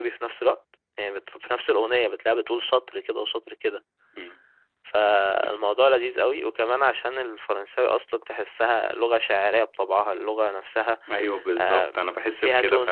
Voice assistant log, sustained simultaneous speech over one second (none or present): none